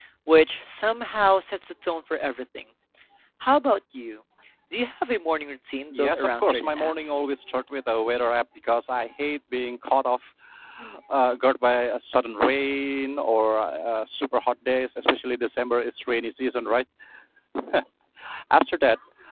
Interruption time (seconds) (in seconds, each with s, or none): 5.9 s